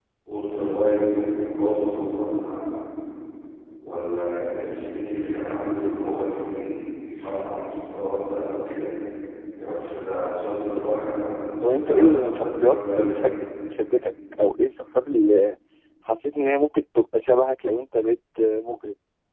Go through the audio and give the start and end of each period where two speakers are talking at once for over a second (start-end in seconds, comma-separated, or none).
11.6-13.3